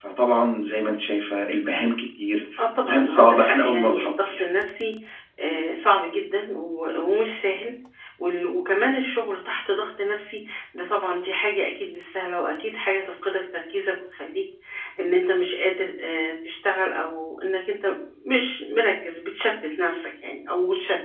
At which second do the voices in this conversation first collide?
2.6 s

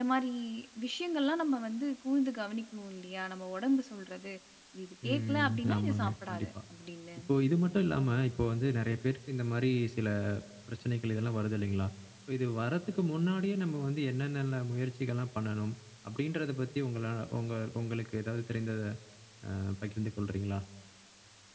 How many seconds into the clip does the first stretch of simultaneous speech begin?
5.1 s

